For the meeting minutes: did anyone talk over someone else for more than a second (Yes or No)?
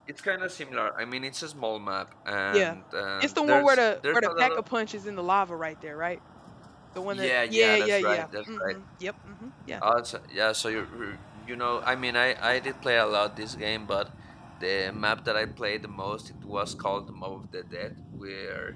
Yes